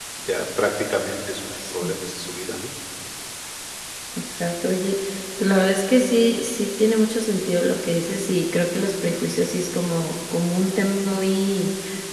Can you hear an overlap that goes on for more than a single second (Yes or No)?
No